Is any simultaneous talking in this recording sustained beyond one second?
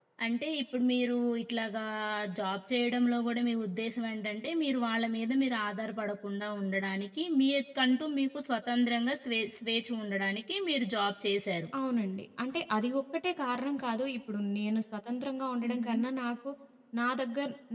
No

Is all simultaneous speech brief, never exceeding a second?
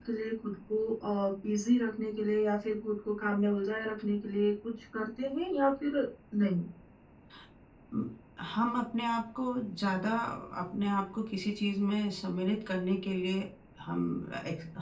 Yes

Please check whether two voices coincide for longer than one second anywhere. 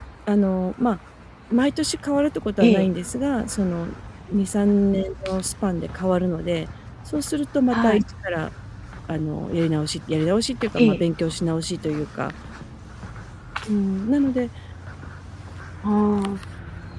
No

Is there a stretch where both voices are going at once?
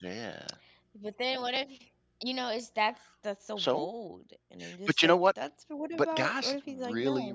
Yes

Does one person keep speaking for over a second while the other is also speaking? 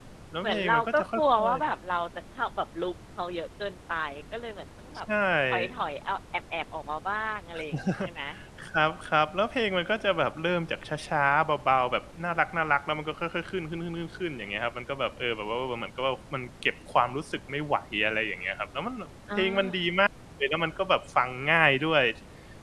Yes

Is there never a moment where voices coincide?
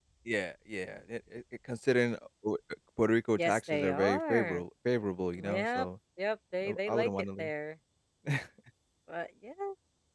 No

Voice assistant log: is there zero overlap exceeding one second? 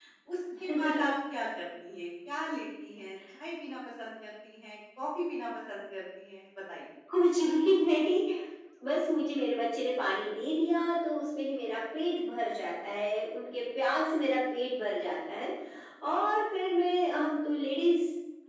Yes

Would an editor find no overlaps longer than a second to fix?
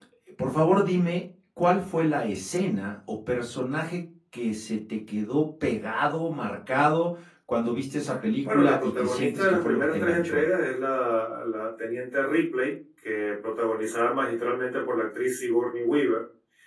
No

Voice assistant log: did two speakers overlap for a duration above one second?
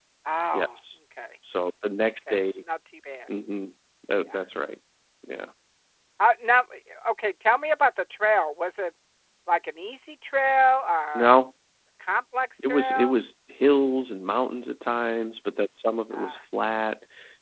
No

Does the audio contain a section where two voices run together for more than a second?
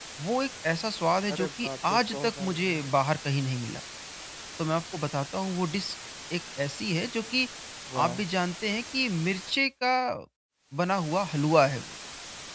Yes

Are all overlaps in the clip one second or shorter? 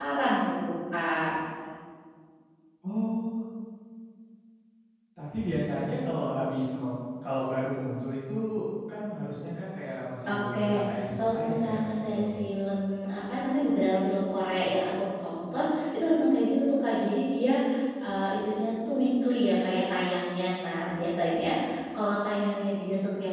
No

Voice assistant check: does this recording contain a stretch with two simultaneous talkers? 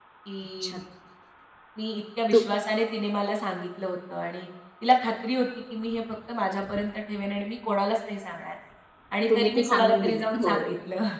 Yes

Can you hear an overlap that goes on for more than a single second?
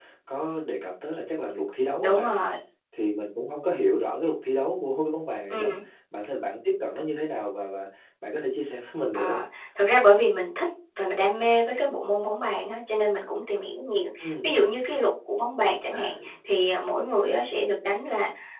No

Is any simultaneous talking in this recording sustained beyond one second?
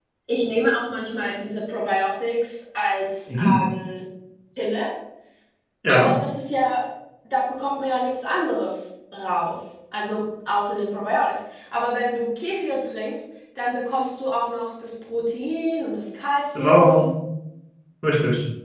No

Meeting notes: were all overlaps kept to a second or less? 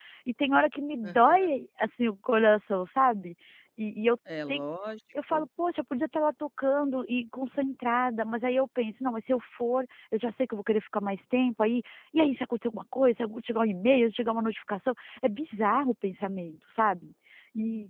Yes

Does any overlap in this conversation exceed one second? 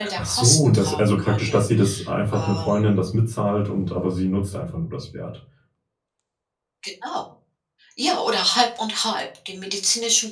Yes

